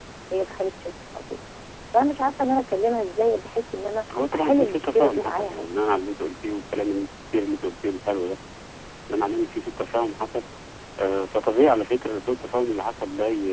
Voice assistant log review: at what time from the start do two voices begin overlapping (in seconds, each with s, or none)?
4.1 s